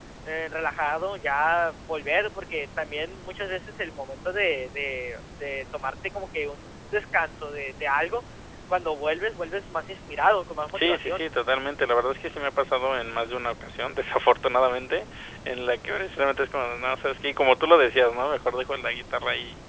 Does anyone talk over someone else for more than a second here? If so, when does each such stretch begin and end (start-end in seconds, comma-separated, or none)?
none